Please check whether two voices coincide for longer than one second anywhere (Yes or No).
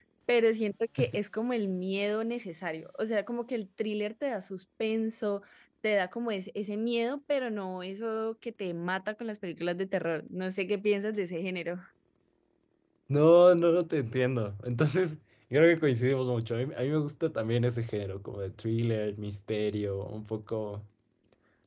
No